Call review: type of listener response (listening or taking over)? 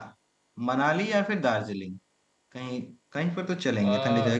listening